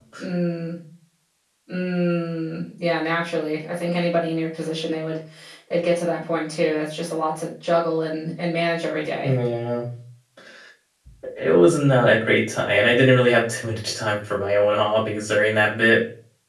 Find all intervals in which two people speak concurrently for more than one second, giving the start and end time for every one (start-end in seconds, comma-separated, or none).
none